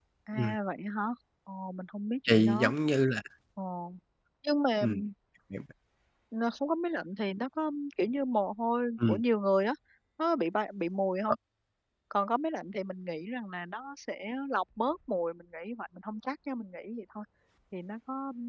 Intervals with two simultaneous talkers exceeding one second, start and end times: none

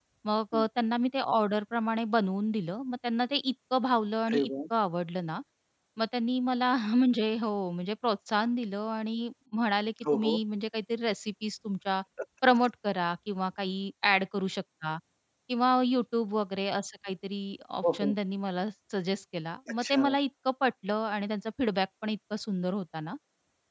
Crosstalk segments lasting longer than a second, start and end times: none

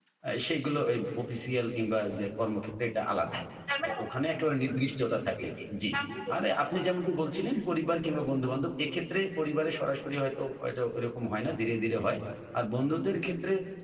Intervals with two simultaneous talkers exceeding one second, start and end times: none

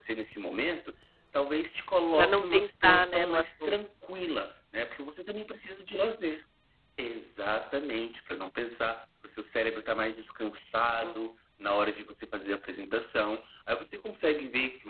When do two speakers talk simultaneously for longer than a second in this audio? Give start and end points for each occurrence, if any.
2.1-3.7

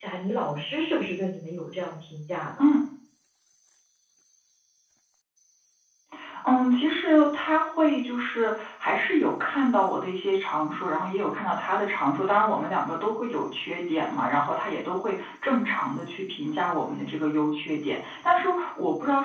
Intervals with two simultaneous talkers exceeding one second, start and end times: none

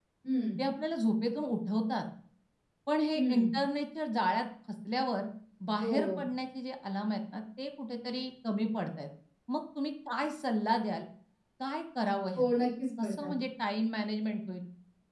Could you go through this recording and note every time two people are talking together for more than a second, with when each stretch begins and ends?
none

